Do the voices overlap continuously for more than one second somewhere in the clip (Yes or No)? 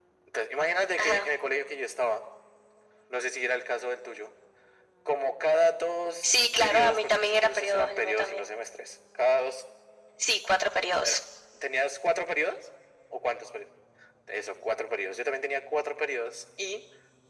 Yes